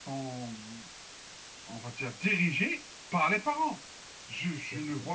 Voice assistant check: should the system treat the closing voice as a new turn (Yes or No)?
No